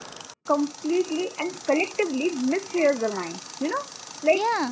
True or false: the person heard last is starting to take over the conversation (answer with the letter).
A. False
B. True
A